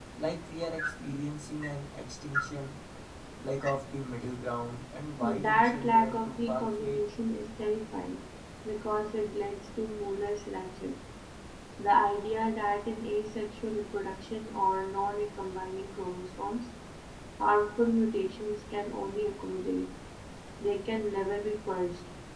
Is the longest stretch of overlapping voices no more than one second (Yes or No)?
No